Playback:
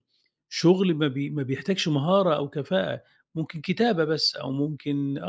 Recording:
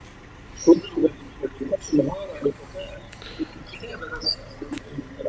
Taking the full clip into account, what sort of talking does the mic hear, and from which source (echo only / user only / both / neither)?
echo only